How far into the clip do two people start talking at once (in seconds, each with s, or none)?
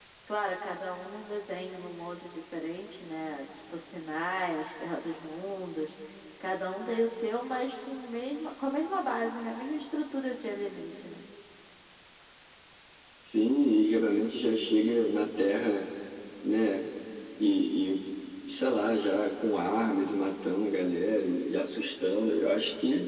none